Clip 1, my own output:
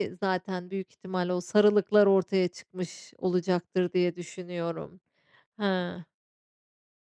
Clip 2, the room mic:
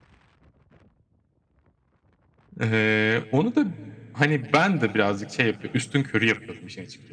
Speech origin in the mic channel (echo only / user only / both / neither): user only